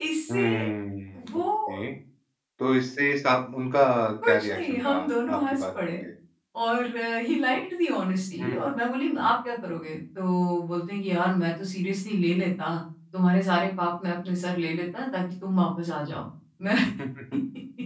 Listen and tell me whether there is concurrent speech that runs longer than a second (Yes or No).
Yes